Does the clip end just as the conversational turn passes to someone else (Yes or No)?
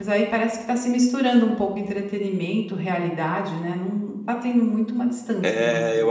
Yes